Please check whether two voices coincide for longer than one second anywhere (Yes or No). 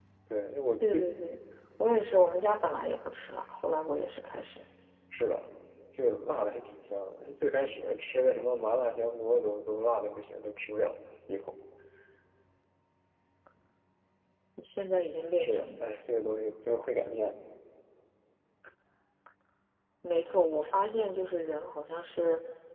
No